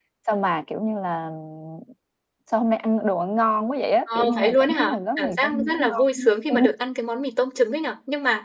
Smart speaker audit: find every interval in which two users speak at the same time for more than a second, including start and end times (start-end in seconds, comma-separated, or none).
4.2-6.6